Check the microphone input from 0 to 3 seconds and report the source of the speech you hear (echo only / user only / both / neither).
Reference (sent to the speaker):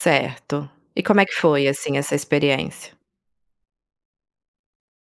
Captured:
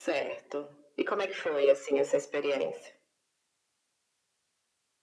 echo only